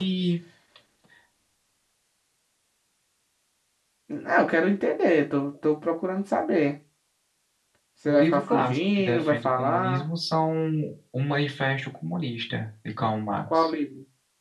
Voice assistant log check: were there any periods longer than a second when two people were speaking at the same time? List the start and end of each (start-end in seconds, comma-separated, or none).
8.1-10.1